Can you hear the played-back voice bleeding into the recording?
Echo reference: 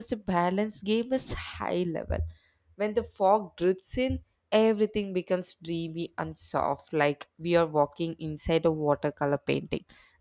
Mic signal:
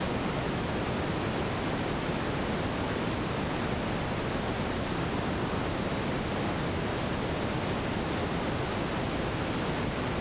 No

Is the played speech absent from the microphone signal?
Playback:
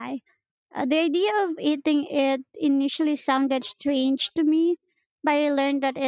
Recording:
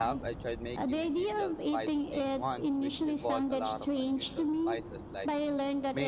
No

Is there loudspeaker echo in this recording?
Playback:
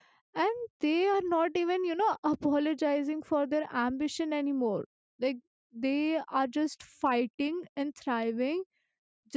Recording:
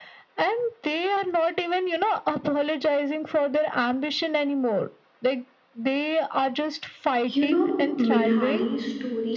Yes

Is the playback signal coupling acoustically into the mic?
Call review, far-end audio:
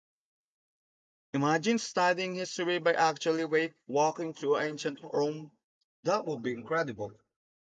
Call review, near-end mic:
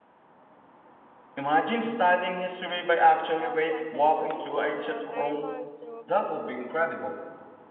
Yes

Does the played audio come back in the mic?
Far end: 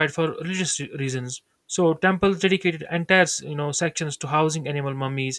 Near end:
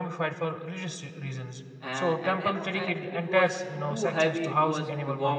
Yes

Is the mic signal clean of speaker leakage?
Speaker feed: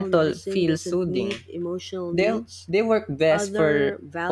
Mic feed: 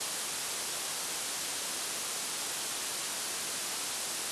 Yes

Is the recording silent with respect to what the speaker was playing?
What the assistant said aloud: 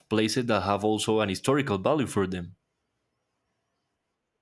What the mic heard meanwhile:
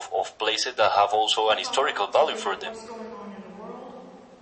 No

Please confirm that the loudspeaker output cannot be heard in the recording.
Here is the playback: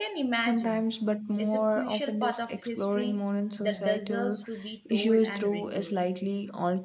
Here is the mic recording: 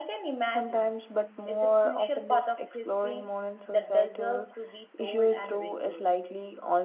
No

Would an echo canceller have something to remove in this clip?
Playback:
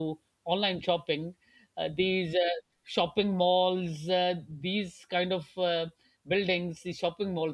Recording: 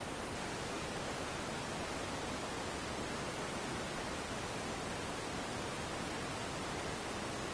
No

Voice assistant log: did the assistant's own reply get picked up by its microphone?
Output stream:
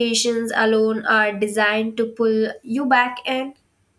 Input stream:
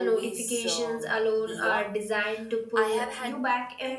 Yes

